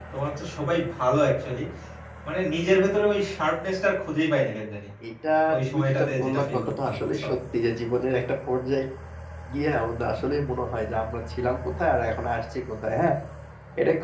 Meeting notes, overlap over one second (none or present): present